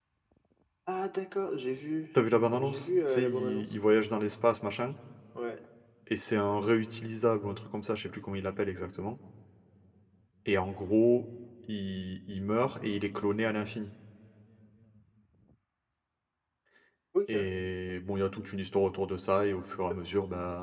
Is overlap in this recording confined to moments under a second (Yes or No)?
No